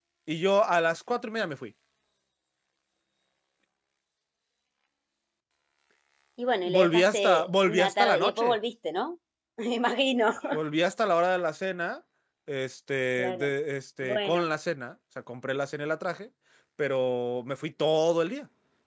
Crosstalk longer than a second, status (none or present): present